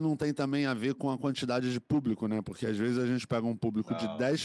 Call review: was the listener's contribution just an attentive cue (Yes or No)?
Yes